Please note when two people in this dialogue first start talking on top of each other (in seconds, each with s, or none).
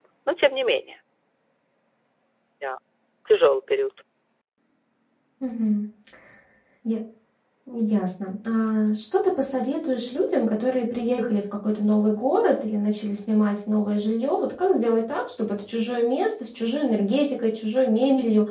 none